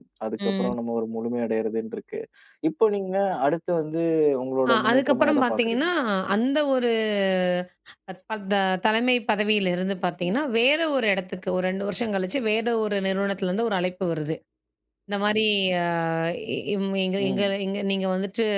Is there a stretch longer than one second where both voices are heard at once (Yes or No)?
Yes